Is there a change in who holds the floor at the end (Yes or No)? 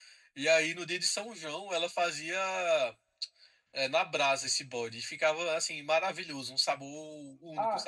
Yes